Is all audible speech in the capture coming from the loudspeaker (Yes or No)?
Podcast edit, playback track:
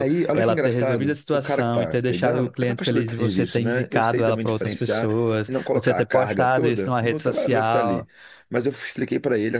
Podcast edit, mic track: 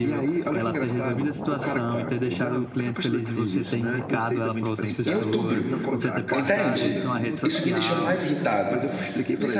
No